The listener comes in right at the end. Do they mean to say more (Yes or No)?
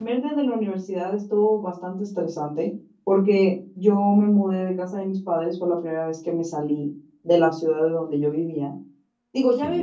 No